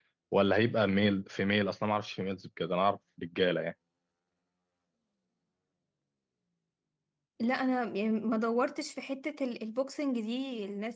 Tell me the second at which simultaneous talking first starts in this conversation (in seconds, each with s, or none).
none